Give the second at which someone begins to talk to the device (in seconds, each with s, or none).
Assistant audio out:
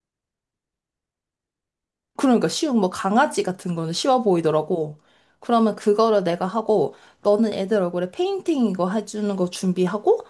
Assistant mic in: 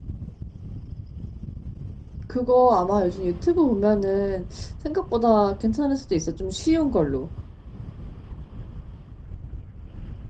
2.3 s